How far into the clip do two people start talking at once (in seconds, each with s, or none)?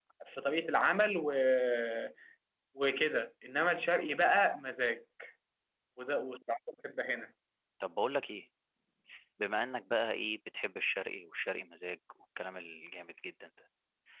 none